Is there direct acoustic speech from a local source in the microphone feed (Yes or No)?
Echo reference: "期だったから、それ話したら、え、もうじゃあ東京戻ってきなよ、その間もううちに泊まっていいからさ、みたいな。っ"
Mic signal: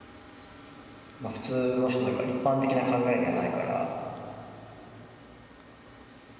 Yes